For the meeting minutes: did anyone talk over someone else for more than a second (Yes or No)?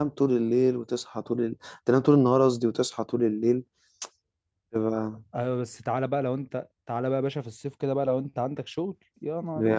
No